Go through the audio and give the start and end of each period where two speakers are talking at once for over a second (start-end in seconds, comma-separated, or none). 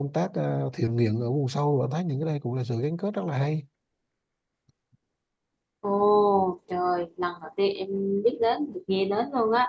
none